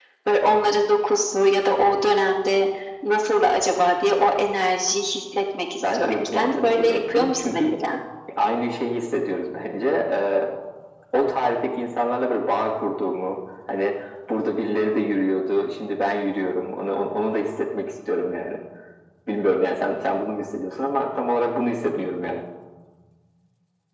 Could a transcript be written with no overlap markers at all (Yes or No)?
No